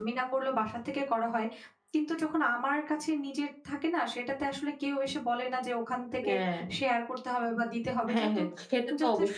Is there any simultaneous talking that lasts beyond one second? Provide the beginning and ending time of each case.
none

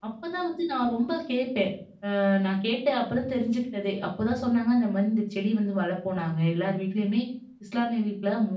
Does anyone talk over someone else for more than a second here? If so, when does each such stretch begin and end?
none

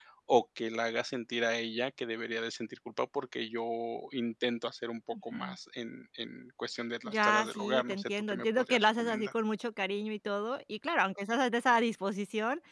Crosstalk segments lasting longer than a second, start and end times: 7.0-9.3

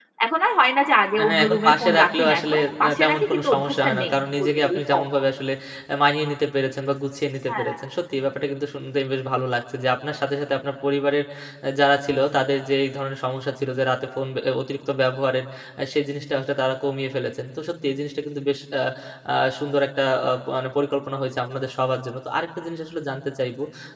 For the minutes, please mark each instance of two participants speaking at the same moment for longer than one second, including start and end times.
1.2-5.0

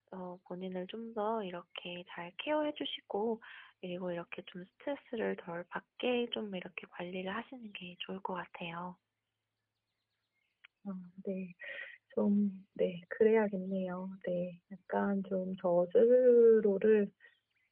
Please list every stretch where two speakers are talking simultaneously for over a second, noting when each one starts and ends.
none

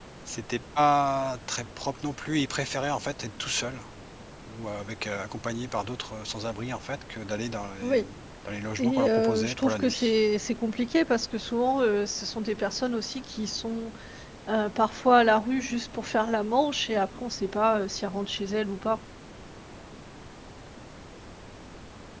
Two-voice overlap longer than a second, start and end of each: 8.8-10.1

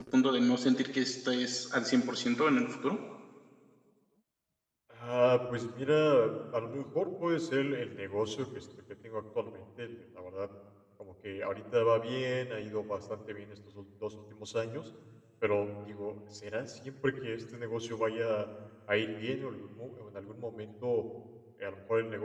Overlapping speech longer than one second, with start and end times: none

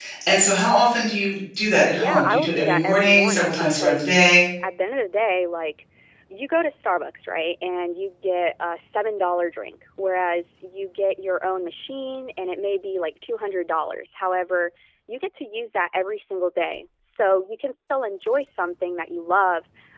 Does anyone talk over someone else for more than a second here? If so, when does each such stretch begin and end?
1.9-4.1

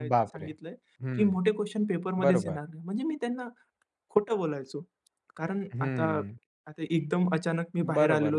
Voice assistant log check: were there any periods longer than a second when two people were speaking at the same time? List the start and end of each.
none

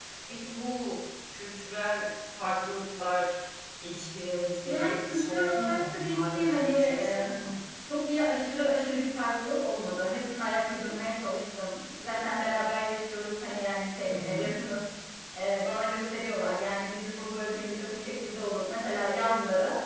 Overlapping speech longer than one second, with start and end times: 4.6-7.5

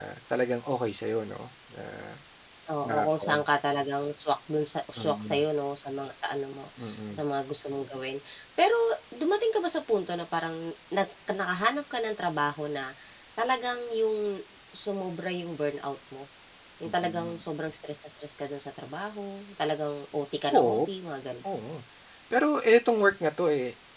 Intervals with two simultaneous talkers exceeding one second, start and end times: none

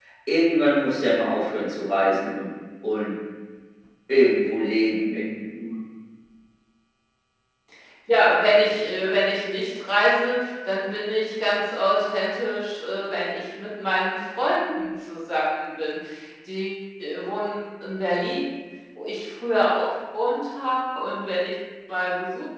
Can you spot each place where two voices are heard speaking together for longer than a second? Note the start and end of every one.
none

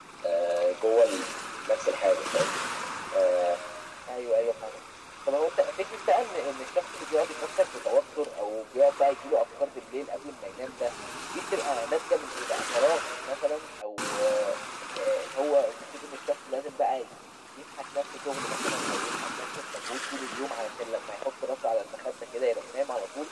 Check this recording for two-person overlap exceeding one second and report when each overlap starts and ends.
none

